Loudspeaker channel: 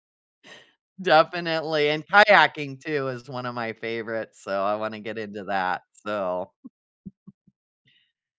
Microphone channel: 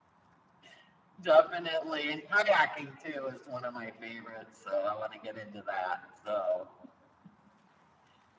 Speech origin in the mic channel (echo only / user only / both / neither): echo only